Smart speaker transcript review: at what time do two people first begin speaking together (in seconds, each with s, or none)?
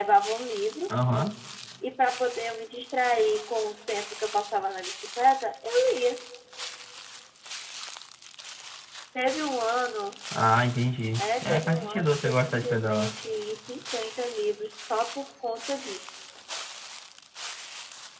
11.2 s